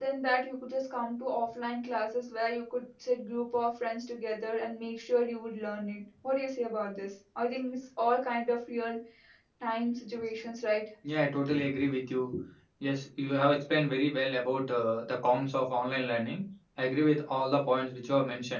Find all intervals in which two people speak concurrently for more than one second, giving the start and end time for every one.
none

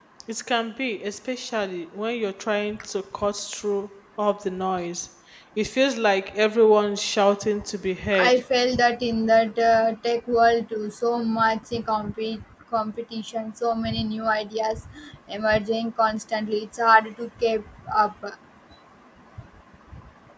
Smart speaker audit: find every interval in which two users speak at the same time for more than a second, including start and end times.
none

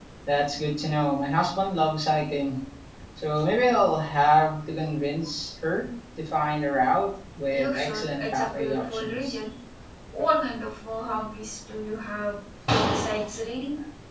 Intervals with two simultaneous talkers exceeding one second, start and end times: 7.5-9.4

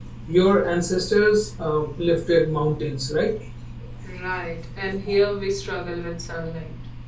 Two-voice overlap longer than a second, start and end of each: none

